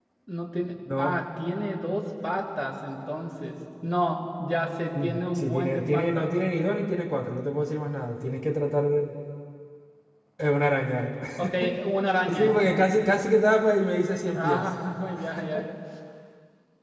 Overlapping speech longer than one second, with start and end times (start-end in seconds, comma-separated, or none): 5.0-6.3